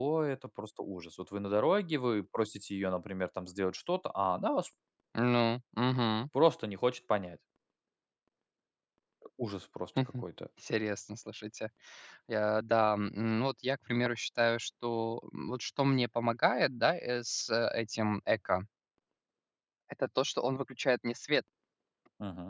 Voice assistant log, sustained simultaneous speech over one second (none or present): none